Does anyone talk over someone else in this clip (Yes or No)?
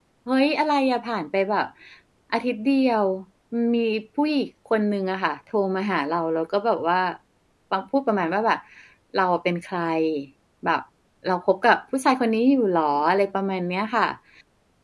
No